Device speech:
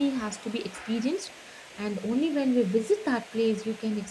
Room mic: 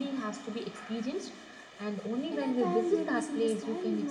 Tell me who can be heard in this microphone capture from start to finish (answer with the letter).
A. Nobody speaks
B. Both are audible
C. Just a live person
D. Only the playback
B